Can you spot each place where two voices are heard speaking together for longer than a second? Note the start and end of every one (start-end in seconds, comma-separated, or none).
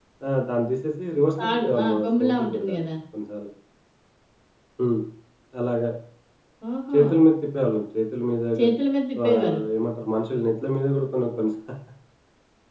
1.4-2.9